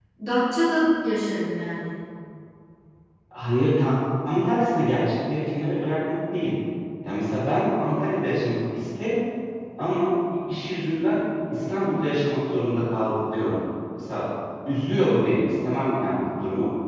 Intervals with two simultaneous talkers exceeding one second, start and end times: none

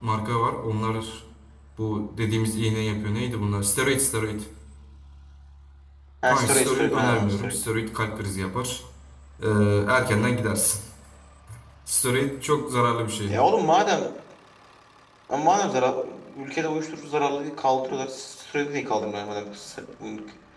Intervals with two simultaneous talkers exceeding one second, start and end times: 6.3-7.5

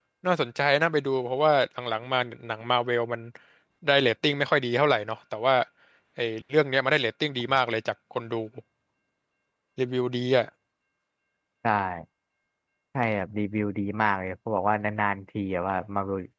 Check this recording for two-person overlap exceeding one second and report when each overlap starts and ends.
none

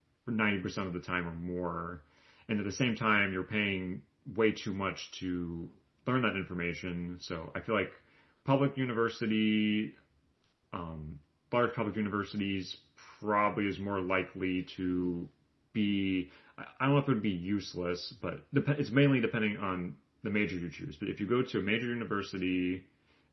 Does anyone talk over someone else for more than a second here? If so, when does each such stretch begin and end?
none

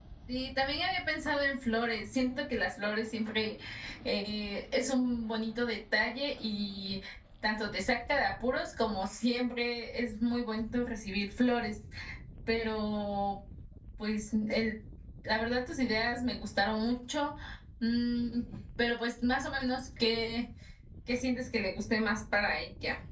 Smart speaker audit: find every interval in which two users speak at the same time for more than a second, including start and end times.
none

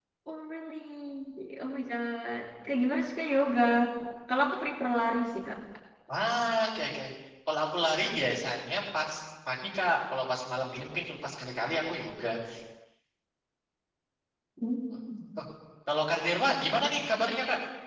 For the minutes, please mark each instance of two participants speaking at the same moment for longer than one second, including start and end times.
none

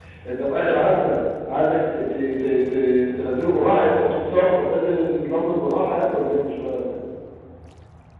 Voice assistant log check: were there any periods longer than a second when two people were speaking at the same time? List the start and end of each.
none

